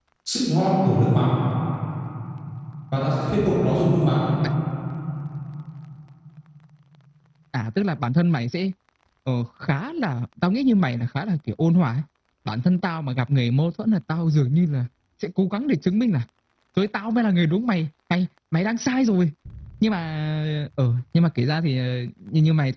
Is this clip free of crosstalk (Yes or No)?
Yes